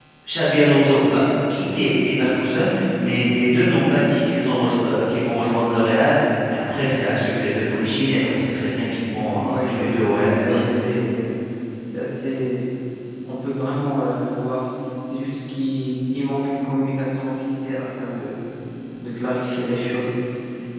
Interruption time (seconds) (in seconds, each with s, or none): 9.3 s